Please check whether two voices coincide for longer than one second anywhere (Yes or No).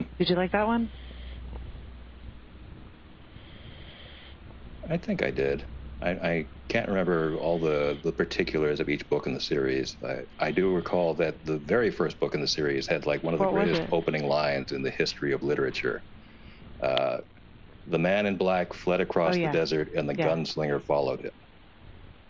No